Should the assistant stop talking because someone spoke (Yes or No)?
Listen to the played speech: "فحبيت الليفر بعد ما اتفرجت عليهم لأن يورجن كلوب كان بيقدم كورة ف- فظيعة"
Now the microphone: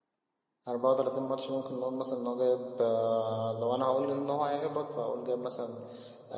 Yes